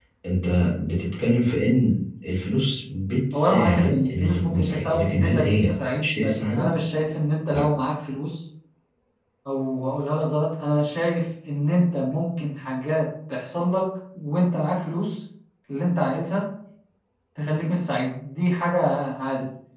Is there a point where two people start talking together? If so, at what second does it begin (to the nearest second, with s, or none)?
3 s